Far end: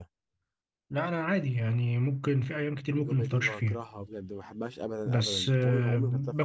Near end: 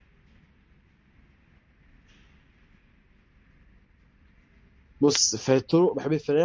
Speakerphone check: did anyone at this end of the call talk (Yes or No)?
Yes